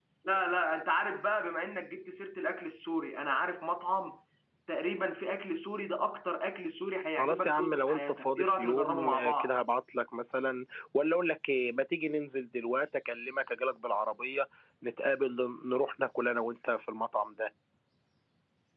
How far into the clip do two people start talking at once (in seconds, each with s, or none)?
7.2 s